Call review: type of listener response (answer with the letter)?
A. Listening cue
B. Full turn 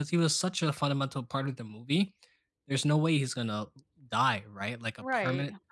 A